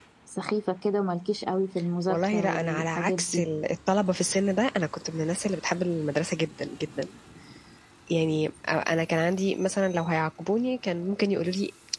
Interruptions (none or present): present